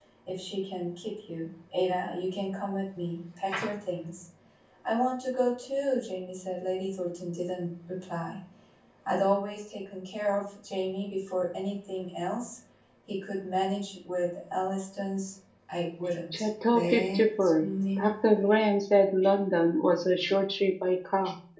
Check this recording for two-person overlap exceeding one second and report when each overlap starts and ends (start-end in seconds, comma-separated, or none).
16.3-18.1